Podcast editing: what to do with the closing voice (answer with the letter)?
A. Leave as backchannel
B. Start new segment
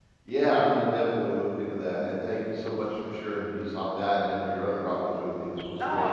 B